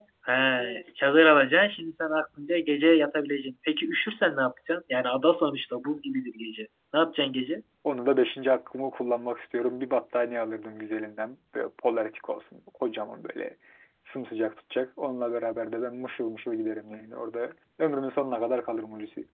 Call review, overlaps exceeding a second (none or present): none